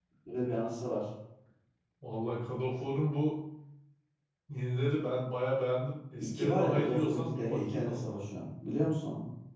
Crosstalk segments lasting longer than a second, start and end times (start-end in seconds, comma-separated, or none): 6.2-8.2